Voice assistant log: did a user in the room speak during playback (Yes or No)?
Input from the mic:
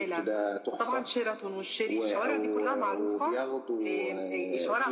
No